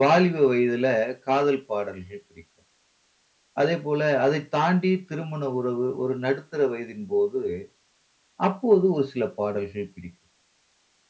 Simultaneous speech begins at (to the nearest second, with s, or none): none